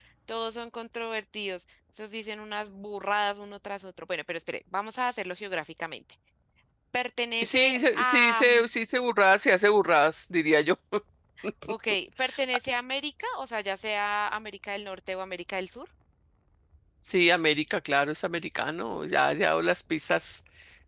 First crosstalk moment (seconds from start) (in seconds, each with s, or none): 7.4 s